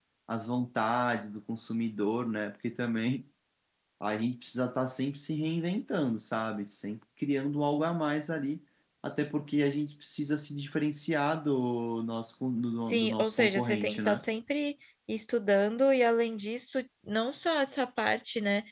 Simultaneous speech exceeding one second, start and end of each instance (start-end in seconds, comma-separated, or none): 12.9-14.2